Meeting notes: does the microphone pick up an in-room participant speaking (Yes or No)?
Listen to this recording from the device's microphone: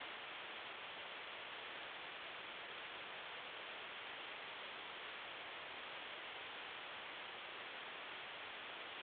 No